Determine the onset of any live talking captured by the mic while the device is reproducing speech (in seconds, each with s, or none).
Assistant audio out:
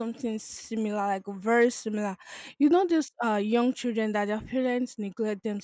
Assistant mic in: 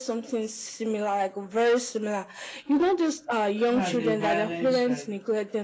3.7 s